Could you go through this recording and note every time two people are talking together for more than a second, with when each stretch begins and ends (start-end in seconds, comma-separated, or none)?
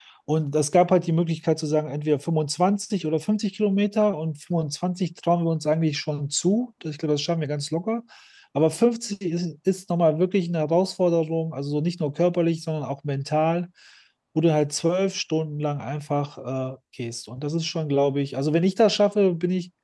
none